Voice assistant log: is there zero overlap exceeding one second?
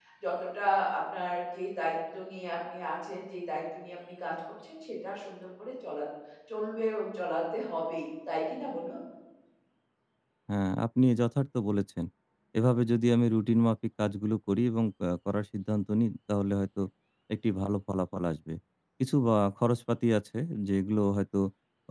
Yes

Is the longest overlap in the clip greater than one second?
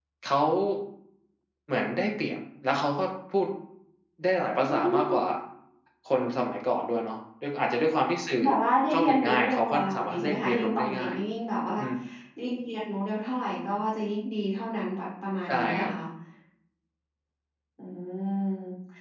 Yes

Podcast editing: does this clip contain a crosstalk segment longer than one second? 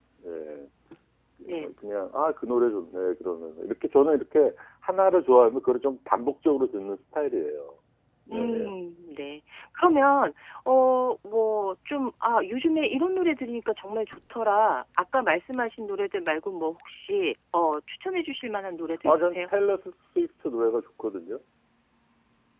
No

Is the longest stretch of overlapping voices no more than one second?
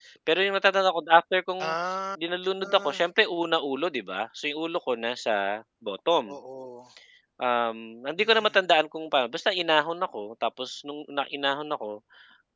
Yes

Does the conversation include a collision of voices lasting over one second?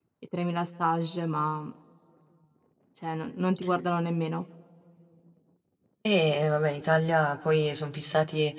No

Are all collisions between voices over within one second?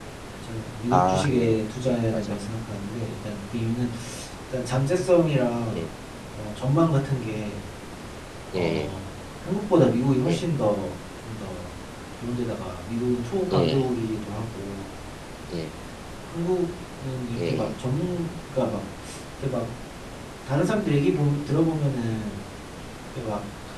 No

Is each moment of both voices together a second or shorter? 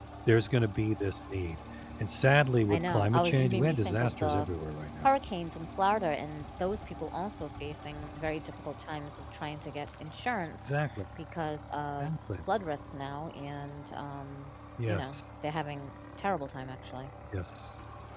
No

